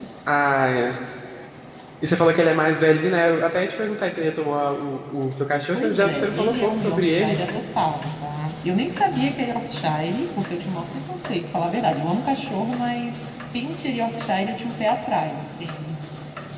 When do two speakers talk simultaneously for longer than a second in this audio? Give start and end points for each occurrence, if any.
5.7-7.4

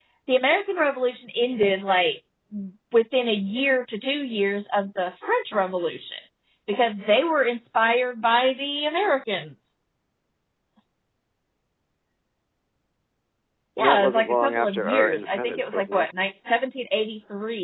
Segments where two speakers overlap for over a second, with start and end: 13.8-16.1

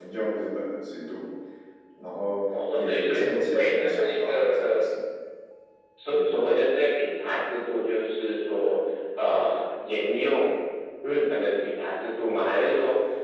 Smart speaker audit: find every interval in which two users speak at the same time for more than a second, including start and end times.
2.7-4.8

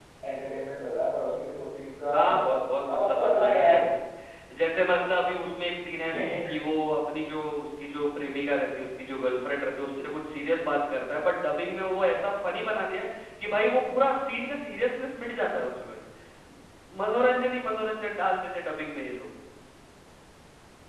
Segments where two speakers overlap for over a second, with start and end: 2.1-3.7

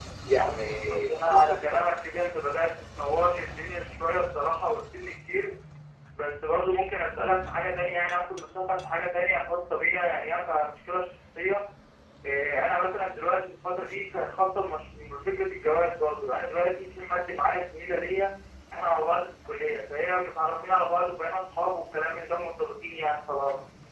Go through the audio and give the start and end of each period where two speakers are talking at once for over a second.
0.6-1.9

